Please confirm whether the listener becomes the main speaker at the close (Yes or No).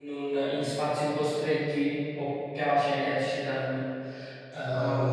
Yes